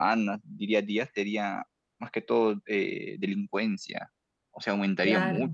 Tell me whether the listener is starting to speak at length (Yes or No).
No